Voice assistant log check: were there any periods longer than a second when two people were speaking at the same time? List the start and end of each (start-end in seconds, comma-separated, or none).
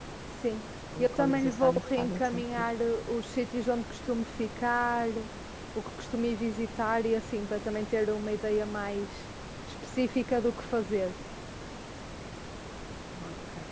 1.0-2.6